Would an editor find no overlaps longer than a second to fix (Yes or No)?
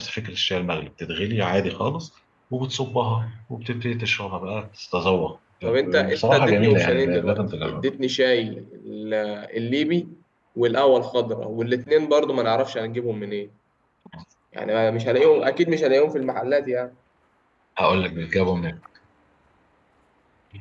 No